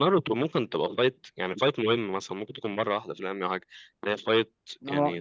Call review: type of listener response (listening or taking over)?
listening